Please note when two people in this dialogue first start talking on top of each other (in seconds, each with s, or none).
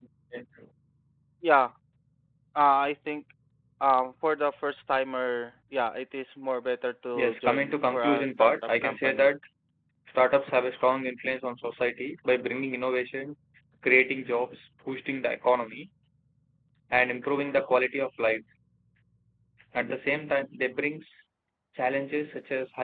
7.1 s